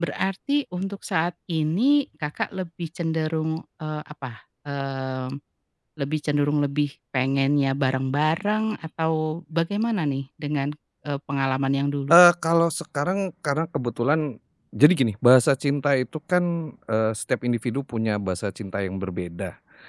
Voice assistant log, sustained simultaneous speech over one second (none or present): none